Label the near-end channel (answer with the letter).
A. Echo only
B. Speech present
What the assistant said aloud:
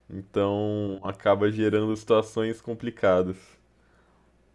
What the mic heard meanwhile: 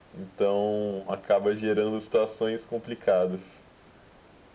A